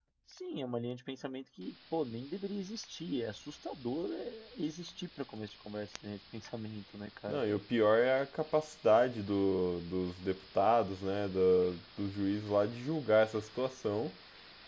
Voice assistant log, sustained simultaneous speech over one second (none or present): none